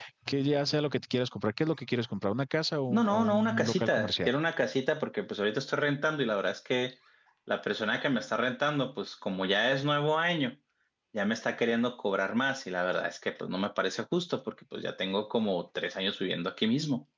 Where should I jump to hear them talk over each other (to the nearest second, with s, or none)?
3 s